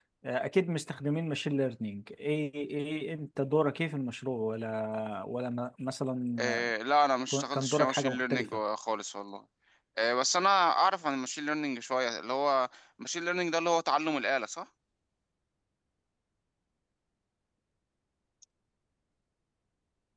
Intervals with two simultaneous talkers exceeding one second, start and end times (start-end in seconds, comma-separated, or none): 7.3-8.6